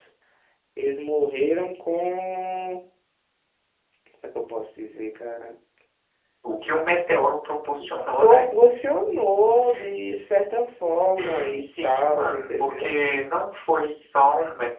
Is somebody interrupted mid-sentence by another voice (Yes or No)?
Yes